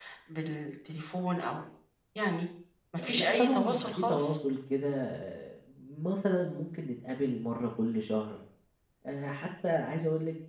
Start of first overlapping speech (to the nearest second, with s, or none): 3 s